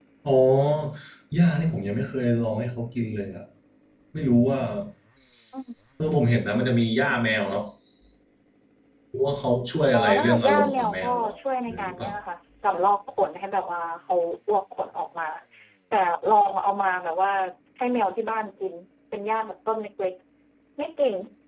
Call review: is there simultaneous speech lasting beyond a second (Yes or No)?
Yes